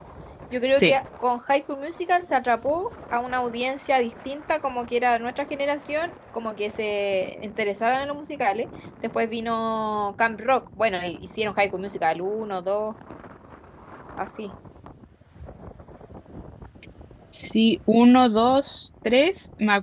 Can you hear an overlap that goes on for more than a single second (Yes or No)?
No